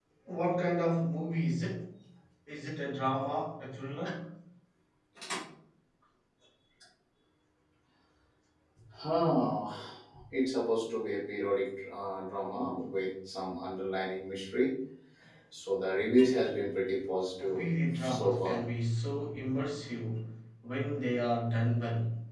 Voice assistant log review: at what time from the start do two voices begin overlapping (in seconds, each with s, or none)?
17.4 s